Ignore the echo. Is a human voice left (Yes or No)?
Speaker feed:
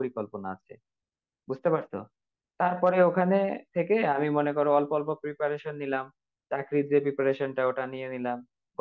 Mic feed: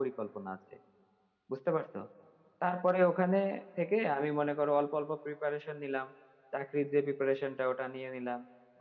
No